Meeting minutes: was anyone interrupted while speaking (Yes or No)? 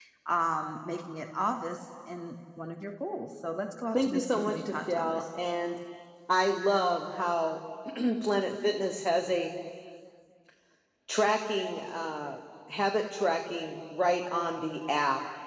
Yes